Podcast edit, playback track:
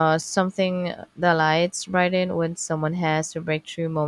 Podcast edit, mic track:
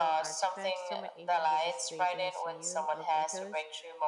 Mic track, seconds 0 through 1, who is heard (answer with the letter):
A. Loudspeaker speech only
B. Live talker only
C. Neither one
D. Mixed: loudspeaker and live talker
D